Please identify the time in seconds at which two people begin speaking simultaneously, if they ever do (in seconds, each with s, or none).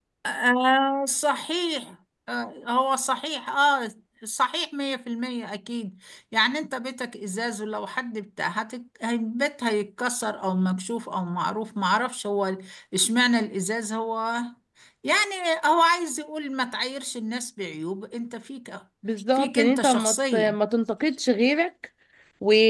19.3 s